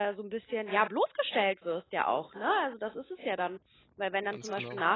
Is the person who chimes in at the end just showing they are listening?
Yes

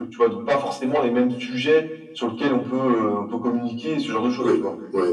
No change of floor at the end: No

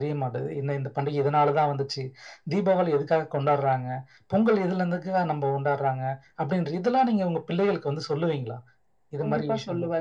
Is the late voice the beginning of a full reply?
Yes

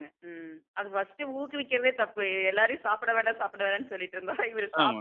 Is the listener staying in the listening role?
No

